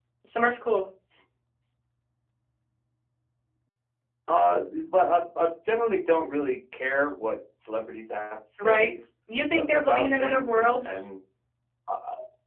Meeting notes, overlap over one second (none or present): present